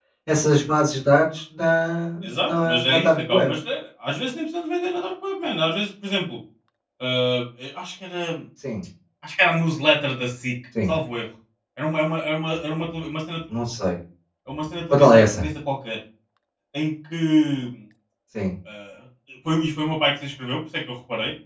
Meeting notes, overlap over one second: present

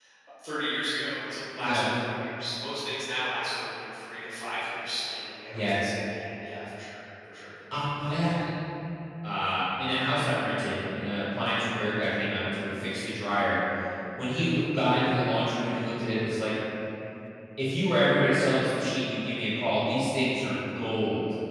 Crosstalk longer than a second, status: none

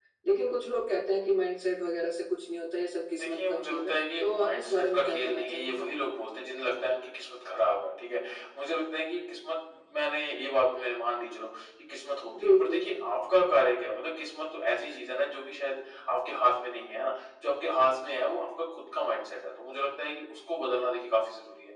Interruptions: present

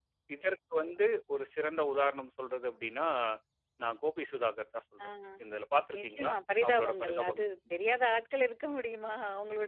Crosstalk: present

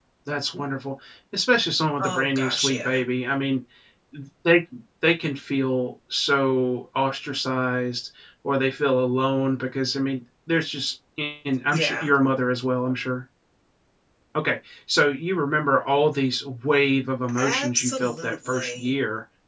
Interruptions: present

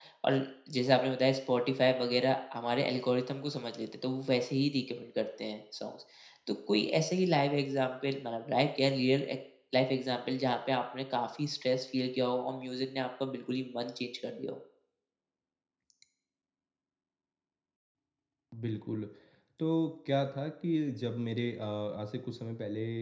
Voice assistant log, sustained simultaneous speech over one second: none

